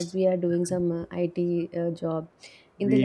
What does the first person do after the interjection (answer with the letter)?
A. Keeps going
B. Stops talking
A